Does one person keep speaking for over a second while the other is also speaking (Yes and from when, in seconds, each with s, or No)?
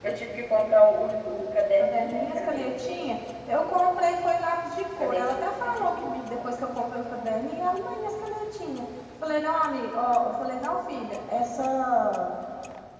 Yes, from 1.8 s